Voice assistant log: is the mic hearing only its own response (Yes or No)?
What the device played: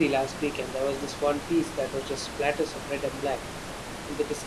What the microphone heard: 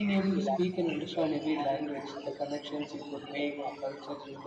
No